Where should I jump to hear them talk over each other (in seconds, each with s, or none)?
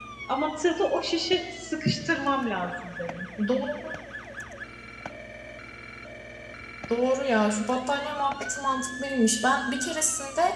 none